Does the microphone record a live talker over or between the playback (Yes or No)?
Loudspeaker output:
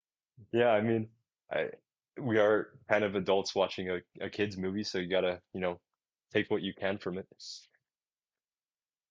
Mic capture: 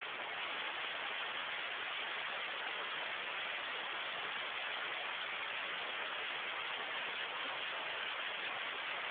No